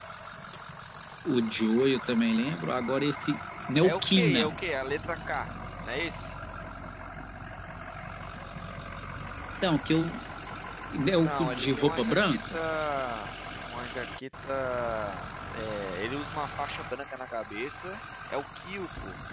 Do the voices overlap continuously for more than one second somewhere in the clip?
Yes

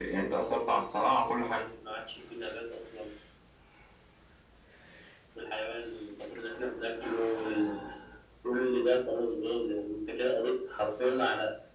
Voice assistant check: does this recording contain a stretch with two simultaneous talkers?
Yes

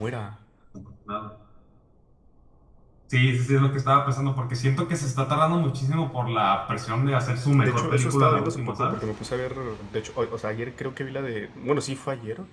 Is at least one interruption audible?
Yes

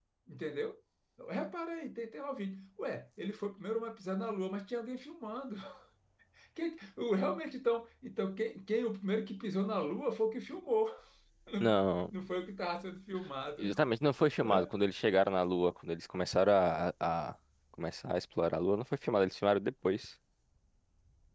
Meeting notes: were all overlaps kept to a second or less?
Yes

